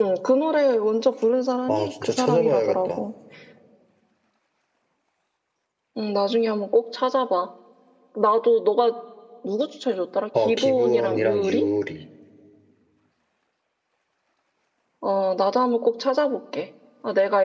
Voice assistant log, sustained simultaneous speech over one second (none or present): present